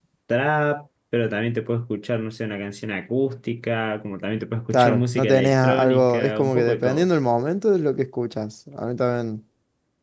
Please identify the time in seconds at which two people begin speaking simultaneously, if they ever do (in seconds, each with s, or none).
4.7 s